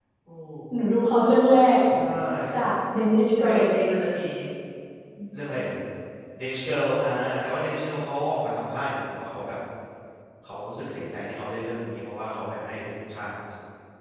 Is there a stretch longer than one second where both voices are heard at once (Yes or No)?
No